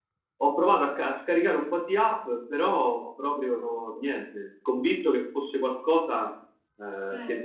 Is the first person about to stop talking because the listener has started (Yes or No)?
No